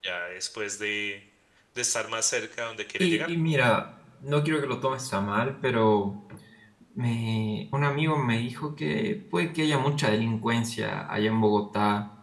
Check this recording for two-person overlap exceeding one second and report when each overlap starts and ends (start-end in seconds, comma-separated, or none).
none